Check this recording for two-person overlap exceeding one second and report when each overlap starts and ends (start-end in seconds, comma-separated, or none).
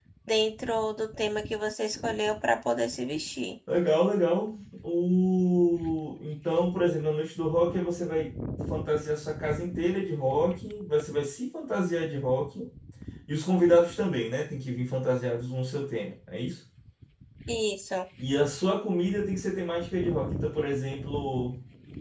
none